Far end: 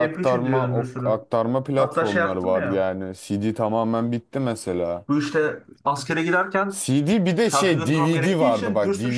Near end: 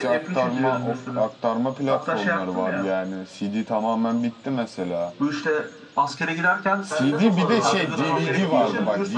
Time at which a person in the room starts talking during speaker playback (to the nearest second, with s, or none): 7 s